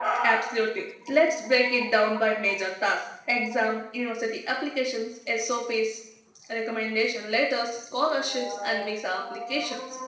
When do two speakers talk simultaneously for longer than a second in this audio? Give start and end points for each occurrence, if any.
none

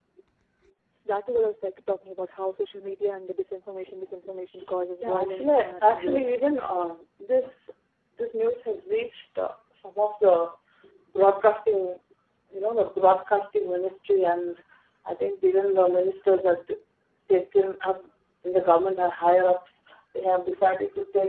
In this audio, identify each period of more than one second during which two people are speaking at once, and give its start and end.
5.0-6.3

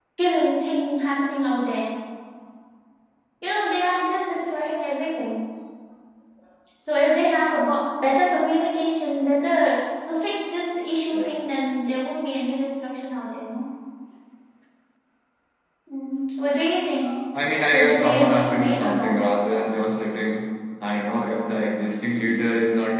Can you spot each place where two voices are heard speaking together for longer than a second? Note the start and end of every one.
17.7-19.2

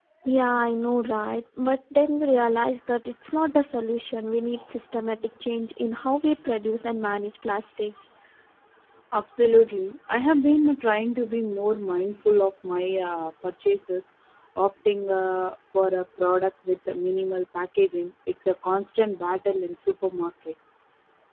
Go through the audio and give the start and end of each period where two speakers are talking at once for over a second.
none

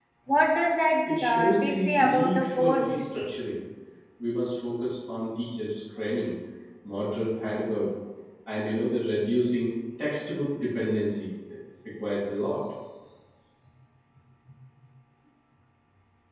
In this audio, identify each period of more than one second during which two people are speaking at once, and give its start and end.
1.2-3.3

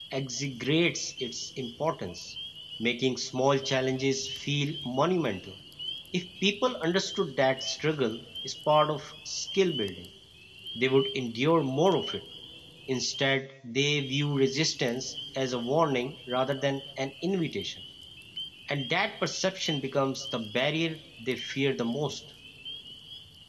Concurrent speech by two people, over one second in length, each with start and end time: none

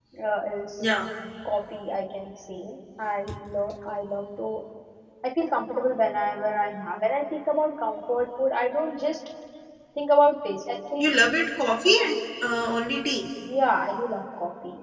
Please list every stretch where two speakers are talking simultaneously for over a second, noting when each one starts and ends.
none

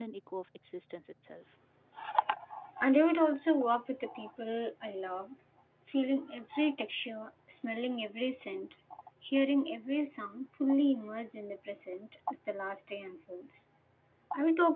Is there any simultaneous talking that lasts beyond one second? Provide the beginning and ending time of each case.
none

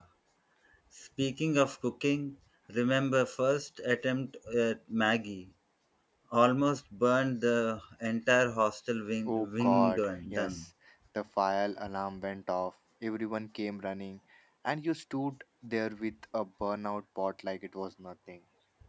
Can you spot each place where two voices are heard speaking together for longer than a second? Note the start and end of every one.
9.2-10.6

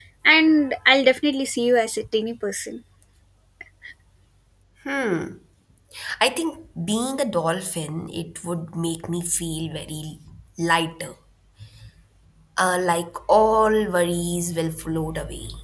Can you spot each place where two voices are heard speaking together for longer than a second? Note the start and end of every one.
none

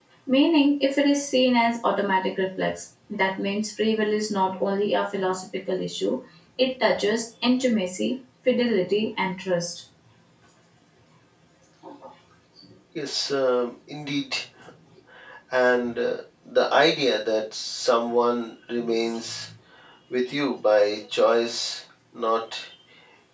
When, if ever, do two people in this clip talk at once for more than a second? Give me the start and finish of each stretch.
none

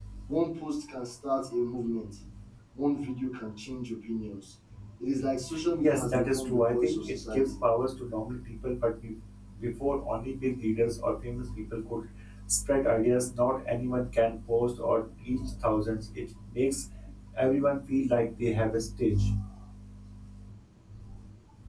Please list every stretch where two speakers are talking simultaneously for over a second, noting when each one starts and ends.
5.8-7.6

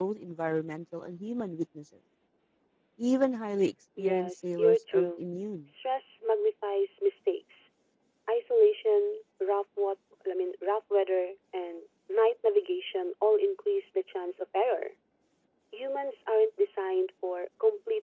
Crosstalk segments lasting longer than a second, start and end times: 4.0-5.2

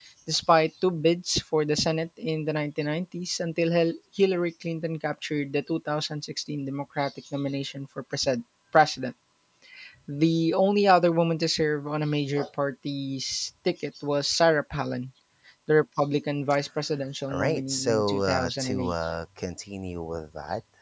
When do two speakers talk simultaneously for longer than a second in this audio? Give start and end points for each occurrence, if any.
17.3-18.9

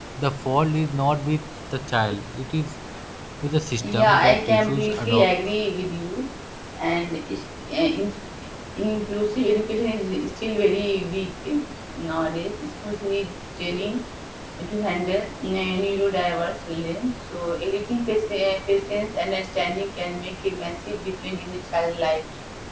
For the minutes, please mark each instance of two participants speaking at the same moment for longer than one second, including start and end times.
3.8-5.5

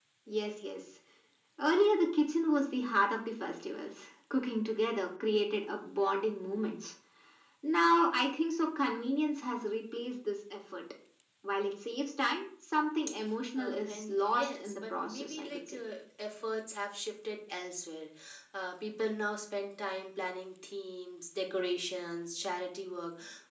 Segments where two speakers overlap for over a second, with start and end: 13.5-15.8

